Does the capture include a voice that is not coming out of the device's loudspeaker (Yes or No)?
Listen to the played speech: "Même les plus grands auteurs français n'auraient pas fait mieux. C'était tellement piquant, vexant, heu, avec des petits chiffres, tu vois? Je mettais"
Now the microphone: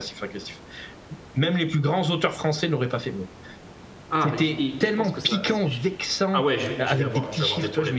Yes